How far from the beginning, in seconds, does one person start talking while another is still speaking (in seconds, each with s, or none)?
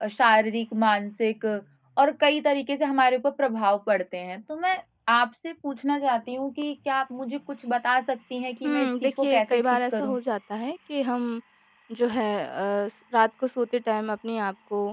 8.6 s